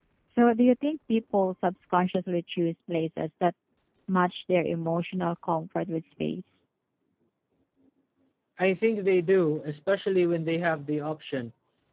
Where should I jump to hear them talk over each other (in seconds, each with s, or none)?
none